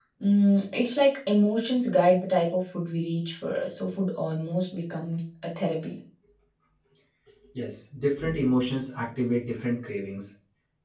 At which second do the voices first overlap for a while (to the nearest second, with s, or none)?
none